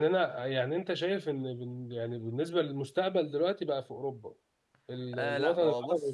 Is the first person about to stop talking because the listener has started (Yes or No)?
Yes